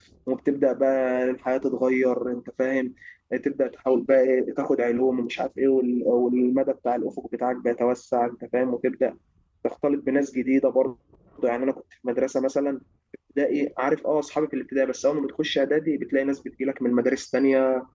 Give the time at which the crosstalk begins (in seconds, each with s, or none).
none